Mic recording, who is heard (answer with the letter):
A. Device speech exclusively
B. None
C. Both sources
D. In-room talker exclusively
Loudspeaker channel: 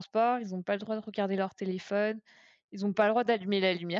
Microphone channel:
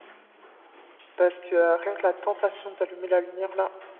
D